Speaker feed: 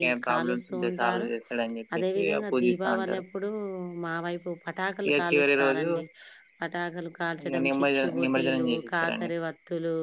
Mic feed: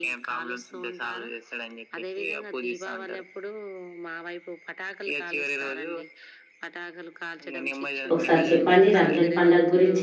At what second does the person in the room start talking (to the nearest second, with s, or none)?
8 s